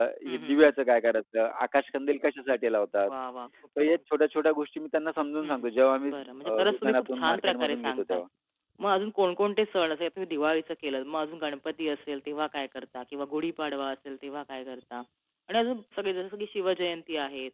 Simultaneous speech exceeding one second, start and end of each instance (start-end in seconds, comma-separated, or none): 6.1-8.2